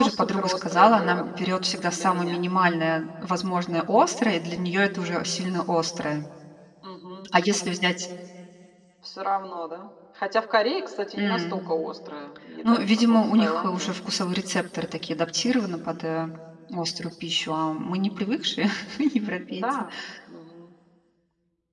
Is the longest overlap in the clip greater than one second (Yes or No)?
Yes